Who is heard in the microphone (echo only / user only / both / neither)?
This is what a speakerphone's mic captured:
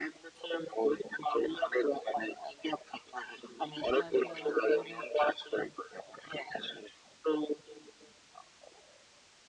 both